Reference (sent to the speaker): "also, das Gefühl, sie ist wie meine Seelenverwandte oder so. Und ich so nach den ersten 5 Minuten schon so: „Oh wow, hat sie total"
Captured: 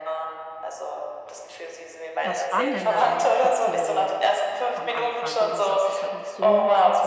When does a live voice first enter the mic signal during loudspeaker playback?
2.2 s

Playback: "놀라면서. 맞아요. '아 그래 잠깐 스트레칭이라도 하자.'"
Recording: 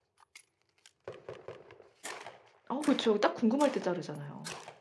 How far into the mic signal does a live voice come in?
2.7 s

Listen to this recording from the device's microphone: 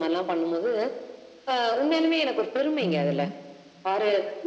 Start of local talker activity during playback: 2.9 s

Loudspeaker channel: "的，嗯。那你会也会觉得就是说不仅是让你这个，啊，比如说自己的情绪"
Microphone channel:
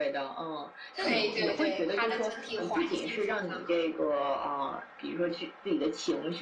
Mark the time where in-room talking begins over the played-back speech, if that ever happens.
0.9 s

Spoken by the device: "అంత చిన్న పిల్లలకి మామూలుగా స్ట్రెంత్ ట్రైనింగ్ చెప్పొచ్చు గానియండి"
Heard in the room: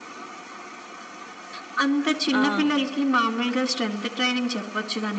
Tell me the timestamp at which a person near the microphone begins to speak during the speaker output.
2.3 s

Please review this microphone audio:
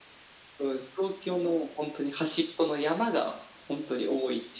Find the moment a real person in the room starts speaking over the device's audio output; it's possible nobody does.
none

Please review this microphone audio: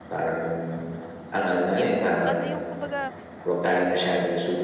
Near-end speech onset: 1.8 s

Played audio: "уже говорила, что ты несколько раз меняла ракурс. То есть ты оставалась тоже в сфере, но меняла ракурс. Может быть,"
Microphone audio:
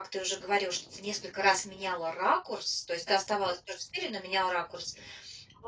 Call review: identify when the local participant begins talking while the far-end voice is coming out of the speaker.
none

